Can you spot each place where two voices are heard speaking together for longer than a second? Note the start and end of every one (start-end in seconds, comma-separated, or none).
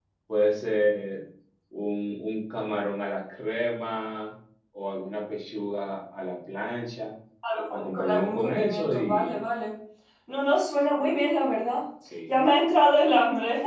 7.7-9.3